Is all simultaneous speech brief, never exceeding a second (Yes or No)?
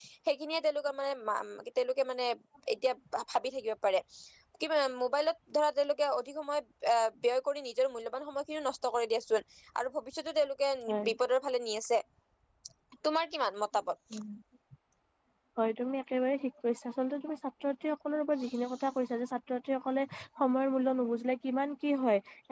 Yes